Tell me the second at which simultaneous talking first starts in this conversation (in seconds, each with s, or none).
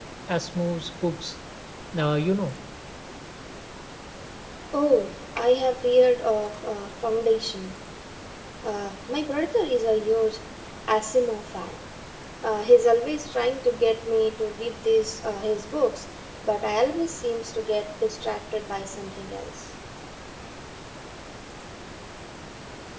none